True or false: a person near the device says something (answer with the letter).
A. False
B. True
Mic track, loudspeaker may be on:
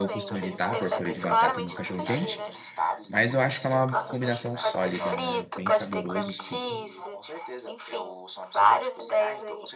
B